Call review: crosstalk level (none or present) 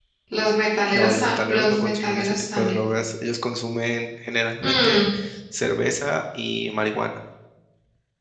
present